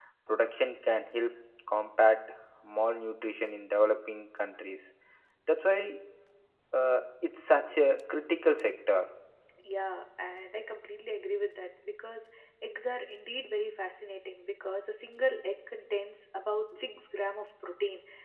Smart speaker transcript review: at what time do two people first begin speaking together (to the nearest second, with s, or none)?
none